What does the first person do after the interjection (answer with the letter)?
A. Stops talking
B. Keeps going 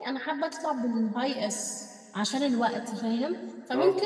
B